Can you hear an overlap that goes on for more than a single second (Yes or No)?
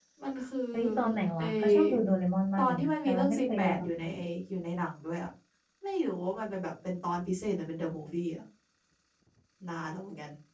Yes